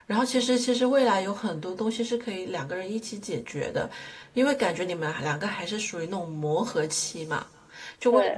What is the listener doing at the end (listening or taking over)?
listening